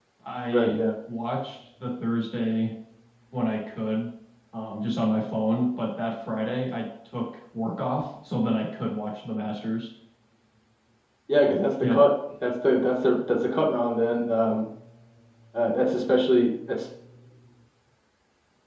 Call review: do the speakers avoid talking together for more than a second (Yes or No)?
Yes